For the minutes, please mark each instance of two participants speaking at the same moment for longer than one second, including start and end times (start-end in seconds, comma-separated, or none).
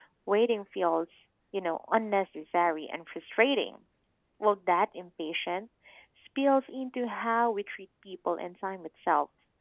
none